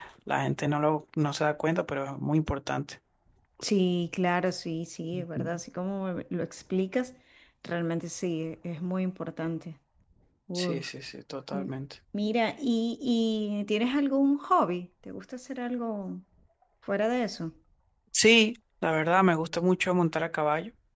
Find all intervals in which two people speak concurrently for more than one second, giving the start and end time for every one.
none

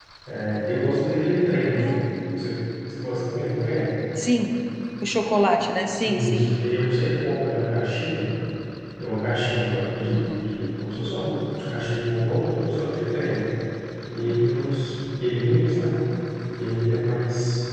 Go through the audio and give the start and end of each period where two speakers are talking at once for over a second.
none

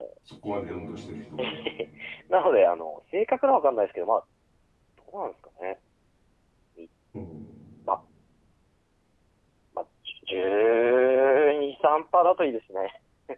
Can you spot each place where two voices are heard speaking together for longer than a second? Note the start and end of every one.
none

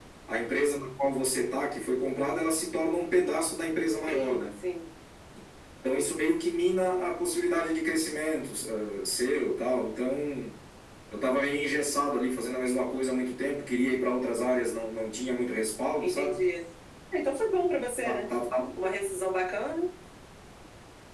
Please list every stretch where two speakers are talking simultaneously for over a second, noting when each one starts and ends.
none

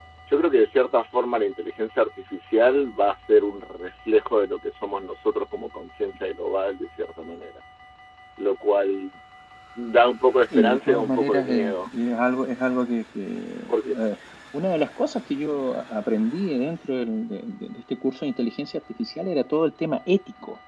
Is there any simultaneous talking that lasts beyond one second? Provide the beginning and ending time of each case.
10.5-11.9

